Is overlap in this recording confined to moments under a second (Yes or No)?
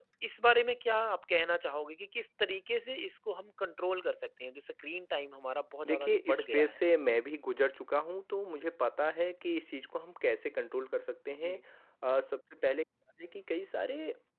No